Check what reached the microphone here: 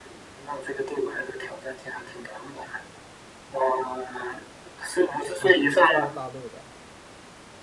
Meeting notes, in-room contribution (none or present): present